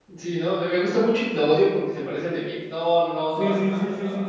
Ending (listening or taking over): taking over